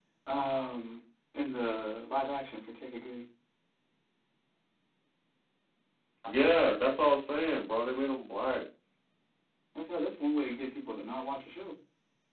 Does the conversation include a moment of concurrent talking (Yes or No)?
No